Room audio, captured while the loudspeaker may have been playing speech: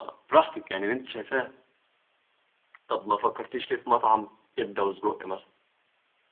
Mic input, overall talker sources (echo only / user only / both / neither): echo only